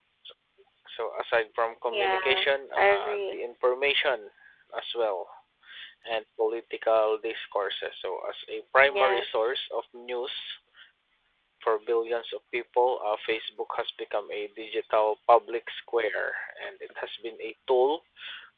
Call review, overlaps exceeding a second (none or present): present